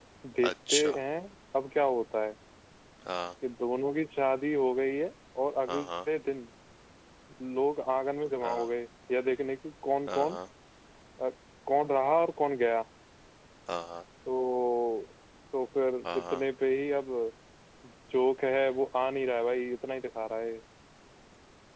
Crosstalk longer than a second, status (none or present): none